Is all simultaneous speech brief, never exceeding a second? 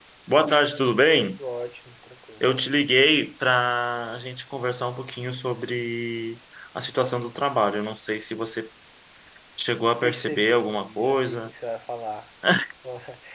No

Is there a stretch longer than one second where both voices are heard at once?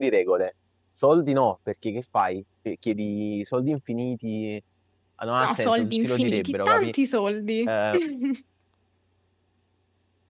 Yes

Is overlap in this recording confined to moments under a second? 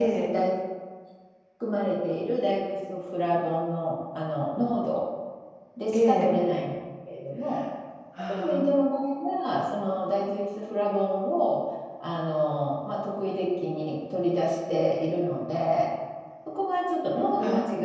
Yes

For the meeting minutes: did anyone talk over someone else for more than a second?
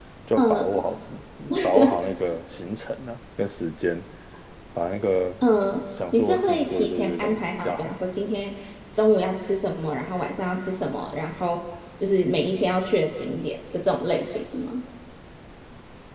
Yes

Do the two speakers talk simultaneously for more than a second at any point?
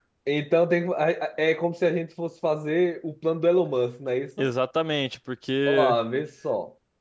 No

